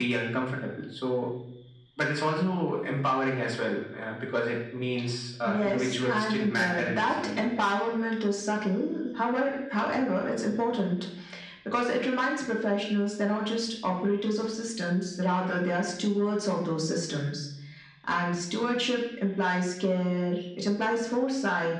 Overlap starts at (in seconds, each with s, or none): 5.4 s